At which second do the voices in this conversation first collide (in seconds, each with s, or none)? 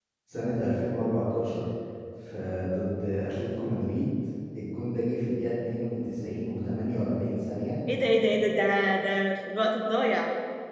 none